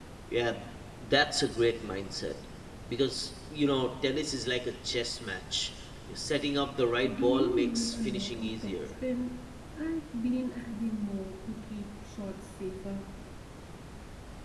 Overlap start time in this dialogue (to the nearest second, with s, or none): 7 s